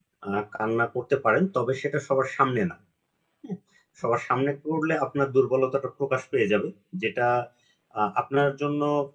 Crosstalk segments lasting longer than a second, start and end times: none

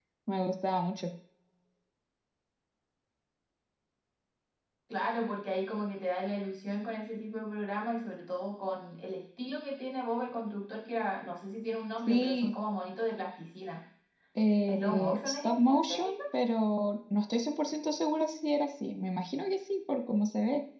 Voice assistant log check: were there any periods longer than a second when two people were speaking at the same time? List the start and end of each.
14.6-16.2

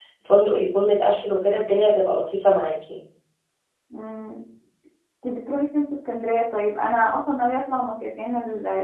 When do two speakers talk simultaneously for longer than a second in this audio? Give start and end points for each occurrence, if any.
none

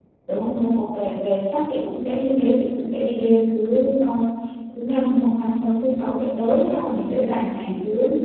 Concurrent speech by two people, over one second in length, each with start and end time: none

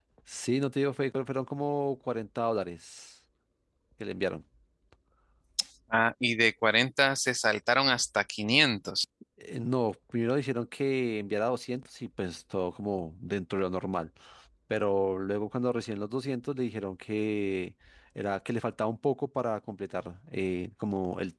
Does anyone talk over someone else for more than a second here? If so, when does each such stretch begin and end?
none

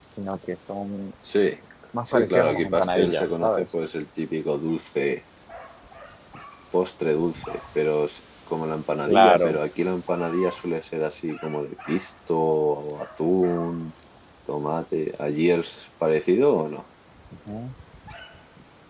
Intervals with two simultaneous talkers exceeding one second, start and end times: 2.0-3.7

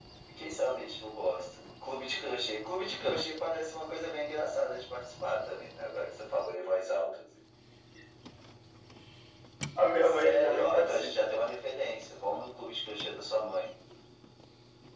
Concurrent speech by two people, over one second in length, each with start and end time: 10.0-11.3

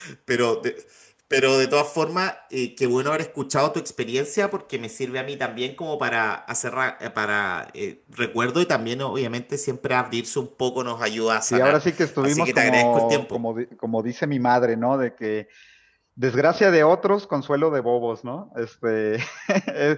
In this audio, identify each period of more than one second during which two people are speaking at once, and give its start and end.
12.2-13.4

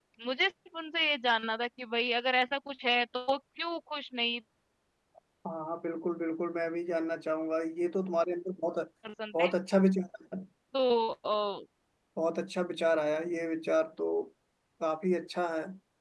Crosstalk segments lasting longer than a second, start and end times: none

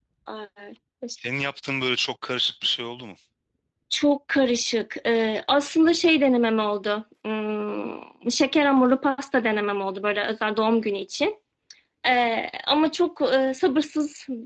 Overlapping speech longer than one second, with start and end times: none

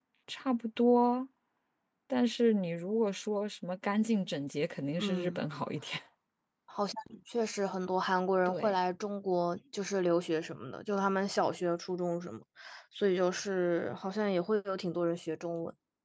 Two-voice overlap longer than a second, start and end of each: none

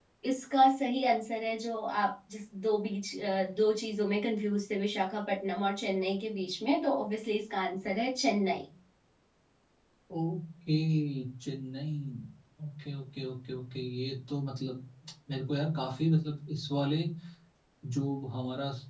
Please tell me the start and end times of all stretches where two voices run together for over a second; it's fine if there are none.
none

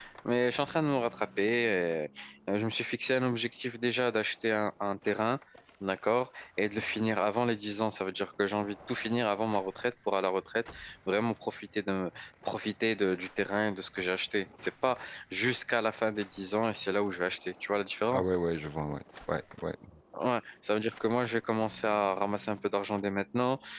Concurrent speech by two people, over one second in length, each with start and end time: none

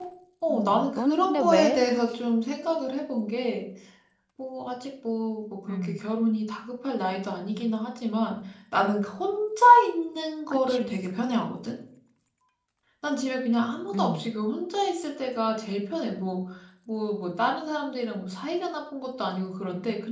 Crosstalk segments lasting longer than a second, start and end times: 0.5-1.8

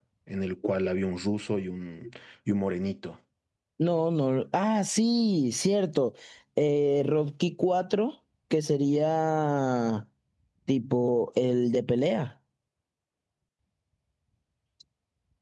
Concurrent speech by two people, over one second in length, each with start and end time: none

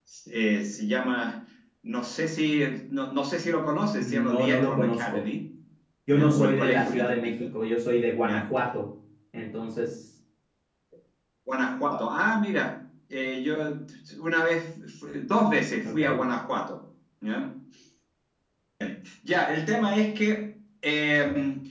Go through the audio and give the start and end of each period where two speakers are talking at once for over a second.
4.0-5.2, 6.1-7.5

